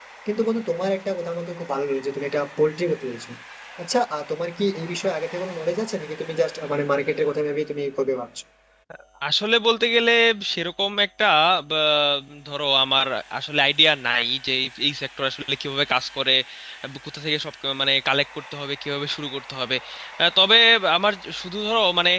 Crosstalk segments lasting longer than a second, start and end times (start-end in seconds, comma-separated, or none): none